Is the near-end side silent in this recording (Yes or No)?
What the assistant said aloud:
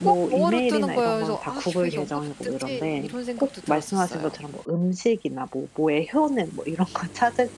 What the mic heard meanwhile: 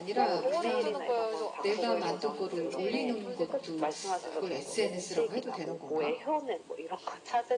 No